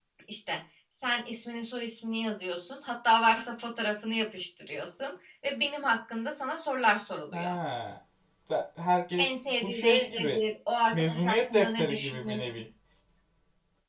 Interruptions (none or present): present